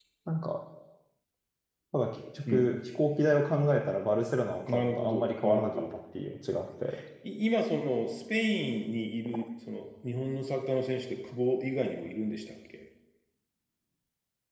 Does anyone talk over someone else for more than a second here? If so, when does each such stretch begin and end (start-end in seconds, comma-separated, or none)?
4.7-5.9